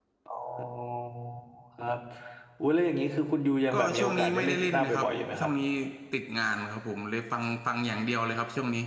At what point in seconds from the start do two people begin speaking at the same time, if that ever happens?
4 s

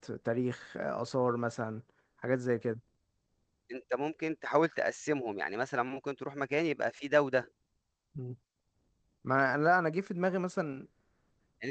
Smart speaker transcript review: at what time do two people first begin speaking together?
none

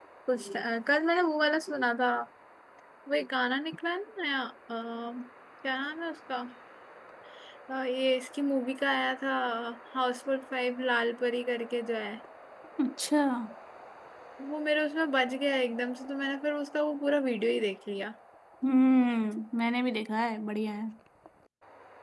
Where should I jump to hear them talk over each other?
none

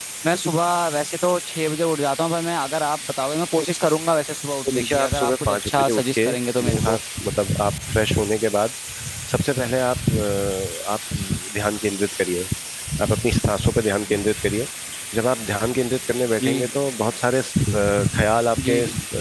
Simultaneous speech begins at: 5 s

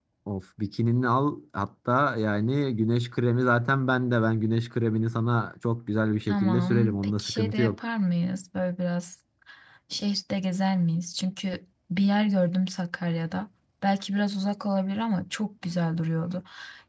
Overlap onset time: 6 s

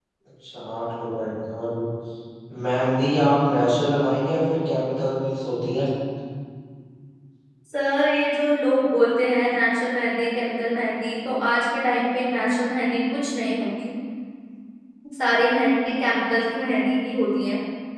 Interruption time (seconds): none

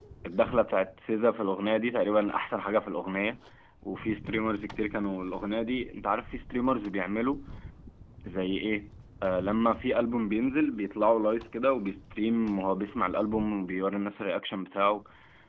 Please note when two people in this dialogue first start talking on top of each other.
none

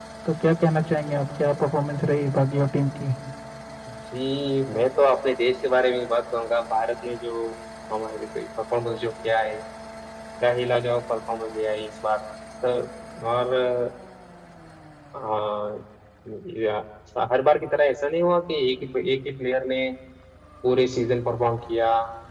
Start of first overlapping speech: none

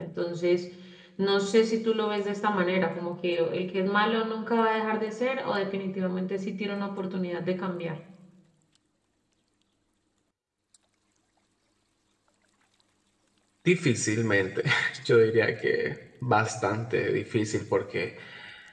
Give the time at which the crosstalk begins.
none

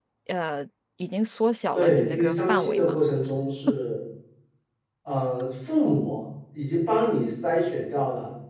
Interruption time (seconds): 2 s

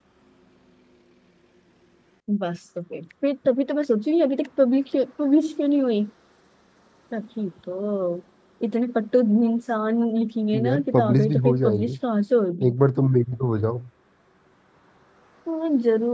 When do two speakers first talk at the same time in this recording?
11 s

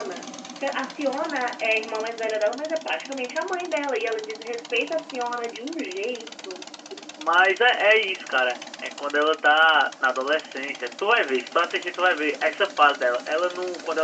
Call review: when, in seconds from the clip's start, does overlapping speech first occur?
none

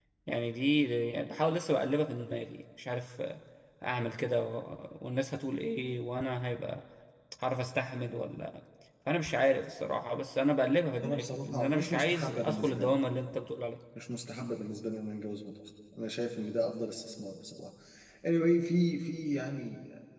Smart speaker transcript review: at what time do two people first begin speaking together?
11 s

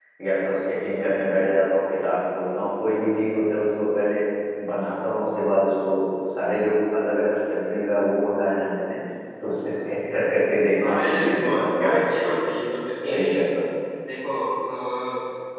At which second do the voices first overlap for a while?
11 s

